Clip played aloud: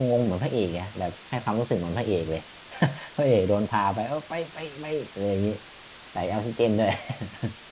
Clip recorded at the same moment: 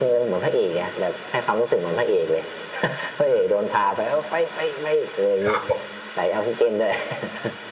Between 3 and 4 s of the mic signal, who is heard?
echo only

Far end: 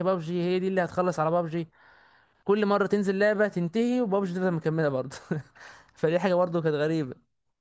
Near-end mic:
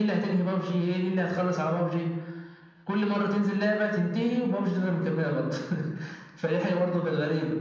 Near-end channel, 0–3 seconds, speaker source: echo only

